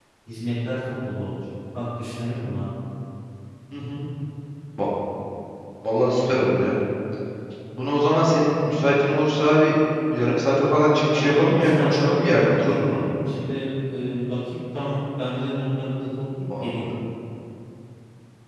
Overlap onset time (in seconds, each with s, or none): 11.1 s